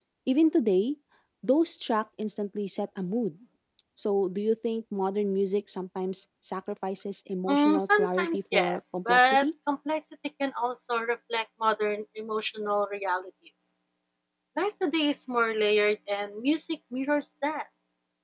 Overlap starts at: 7.5 s

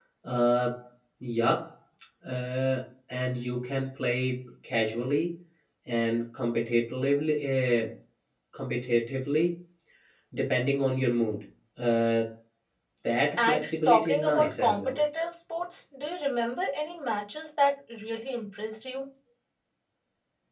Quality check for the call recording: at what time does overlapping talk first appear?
13.4 s

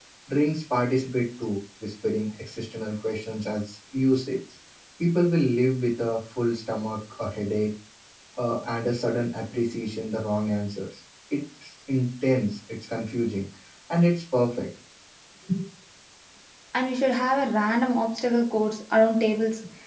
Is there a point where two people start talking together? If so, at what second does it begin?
none

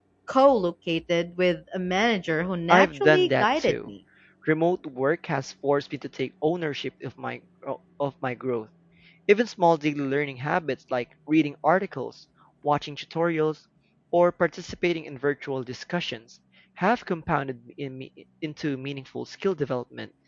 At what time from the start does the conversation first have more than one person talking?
2.7 s

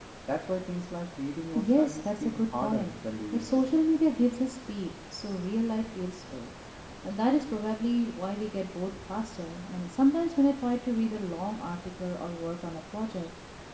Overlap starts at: 1.5 s

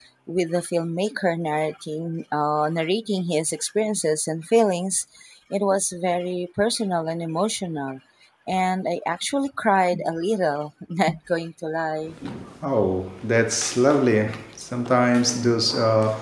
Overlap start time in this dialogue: none

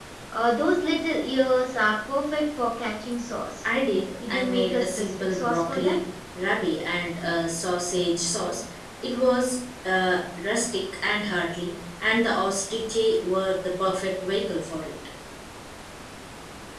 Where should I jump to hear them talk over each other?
4.3 s

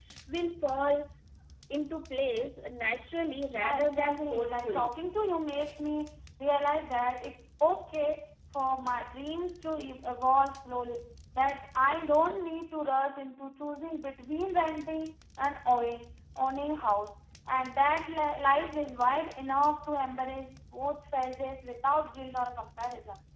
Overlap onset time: 3.5 s

